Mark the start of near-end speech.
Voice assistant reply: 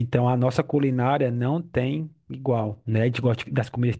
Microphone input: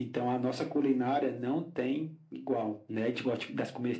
none

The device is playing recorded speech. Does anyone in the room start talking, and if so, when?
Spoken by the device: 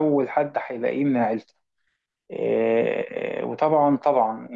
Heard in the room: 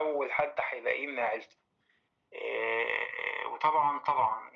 none

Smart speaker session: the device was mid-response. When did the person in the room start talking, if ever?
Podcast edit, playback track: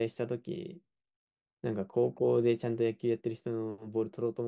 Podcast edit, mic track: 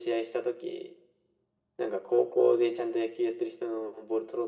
none

